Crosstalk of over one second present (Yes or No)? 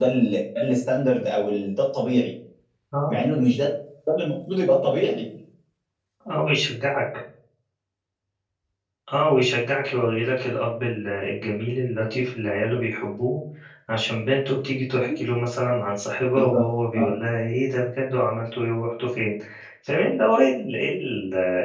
No